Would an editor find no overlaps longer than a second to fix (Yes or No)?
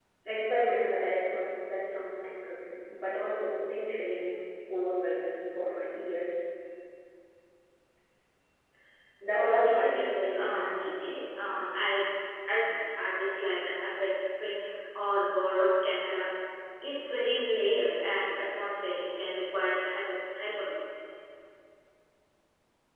No